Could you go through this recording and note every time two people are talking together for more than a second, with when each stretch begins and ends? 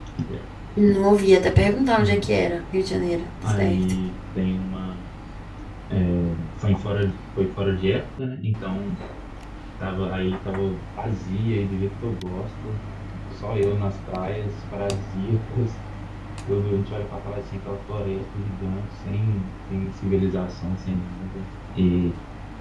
none

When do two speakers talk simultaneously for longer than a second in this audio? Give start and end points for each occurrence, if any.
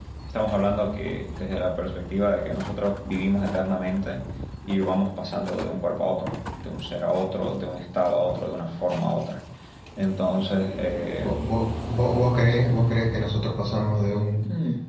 none

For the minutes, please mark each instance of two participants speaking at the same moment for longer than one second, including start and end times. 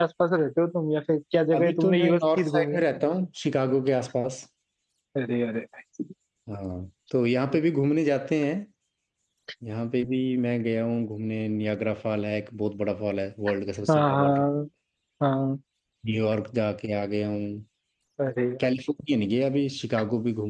1.6-2.8

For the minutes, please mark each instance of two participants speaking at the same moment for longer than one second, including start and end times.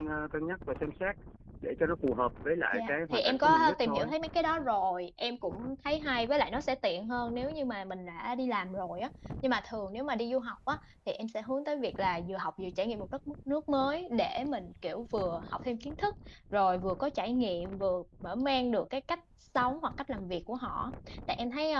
2.7-4.1

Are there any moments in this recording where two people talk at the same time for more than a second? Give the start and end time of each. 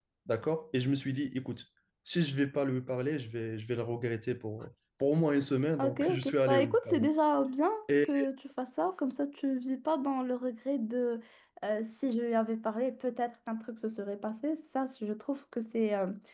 5.8-7.1

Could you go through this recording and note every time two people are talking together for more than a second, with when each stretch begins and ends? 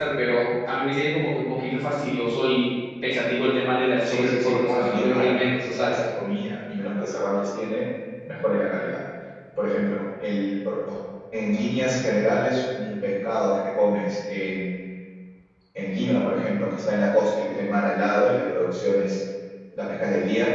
4.0-6.0

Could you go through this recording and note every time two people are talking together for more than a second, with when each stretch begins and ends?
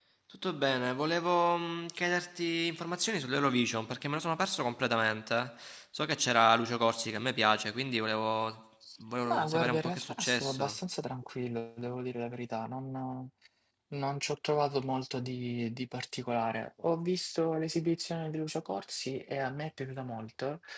9.2-10.8

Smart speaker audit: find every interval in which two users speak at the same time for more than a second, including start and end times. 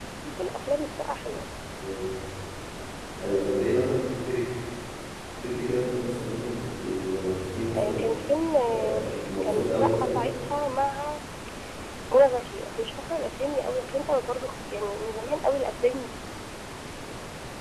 8.7-10.2

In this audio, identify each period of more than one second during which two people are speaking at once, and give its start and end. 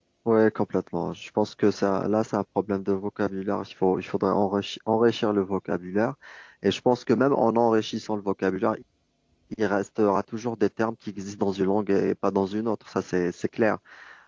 none

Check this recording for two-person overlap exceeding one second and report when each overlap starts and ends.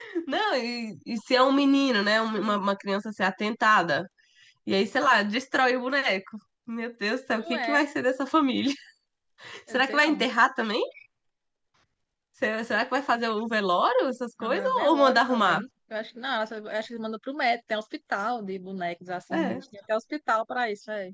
14.4-15.6

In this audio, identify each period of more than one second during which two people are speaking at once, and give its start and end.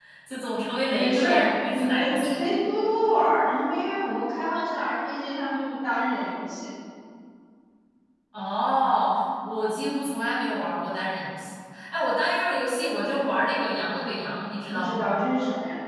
0.9-2.3

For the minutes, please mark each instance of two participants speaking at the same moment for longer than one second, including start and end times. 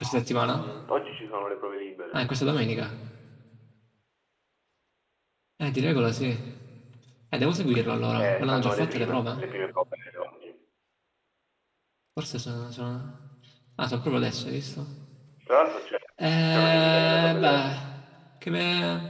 8.2-9.4, 16.5-17.8

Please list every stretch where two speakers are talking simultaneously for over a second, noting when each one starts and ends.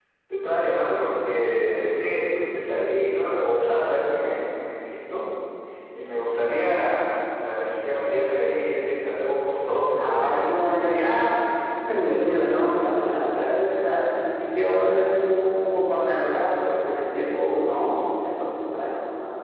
9.9-11.3

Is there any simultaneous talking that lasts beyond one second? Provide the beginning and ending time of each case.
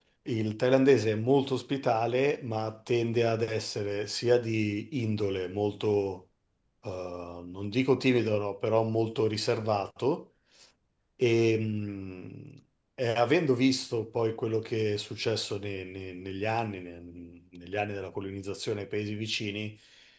none

